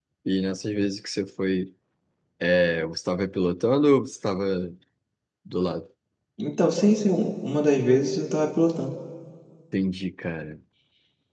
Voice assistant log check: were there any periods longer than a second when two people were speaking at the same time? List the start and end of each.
none

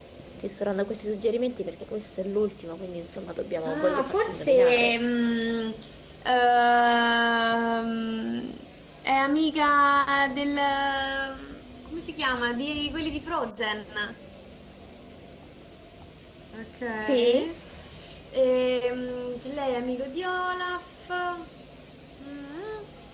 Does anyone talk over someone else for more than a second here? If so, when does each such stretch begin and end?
3.6-5.0

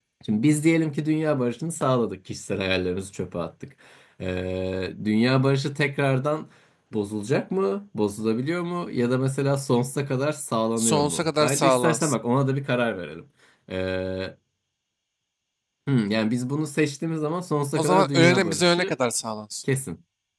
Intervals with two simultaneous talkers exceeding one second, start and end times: 10.8-12.1, 17.8-19.0

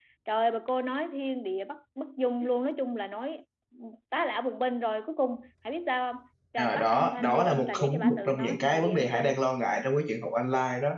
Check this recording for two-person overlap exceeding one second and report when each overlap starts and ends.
6.6-9.3

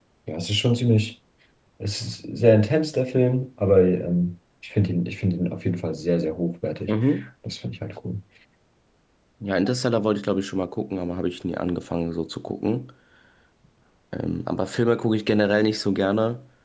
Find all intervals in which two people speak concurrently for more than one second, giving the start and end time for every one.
none

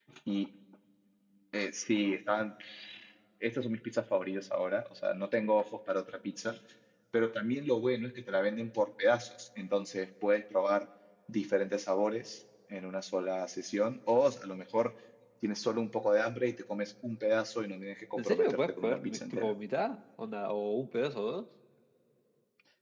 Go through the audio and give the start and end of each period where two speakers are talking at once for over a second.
18.2-19.5

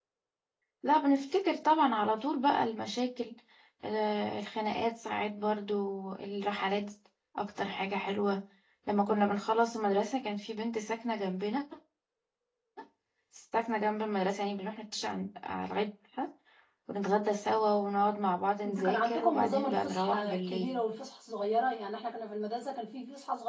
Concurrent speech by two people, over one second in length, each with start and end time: 18.6-20.8

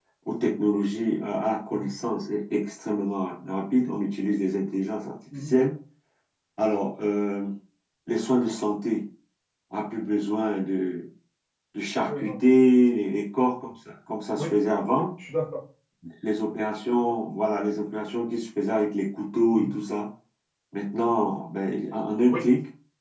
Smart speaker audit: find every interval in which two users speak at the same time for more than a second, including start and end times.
none

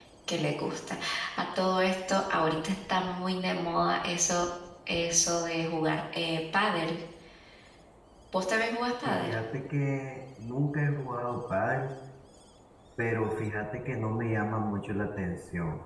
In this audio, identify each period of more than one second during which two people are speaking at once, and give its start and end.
none

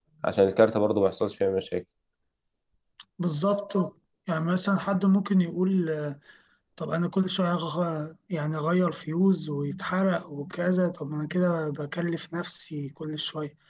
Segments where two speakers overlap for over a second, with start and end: none

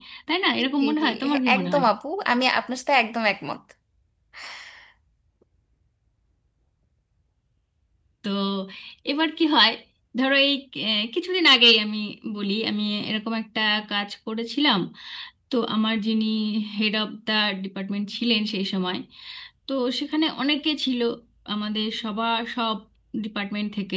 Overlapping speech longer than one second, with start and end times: 0.6-1.8

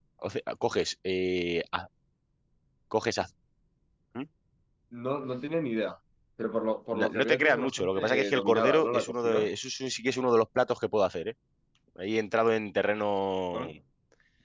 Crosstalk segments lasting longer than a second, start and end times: 6.9-9.5

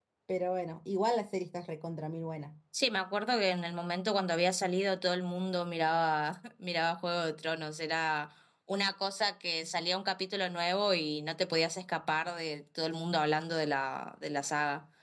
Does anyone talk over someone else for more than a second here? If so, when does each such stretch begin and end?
none

